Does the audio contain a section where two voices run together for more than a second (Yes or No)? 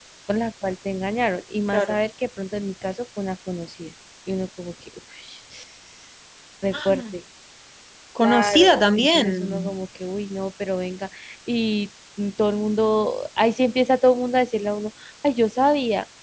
Yes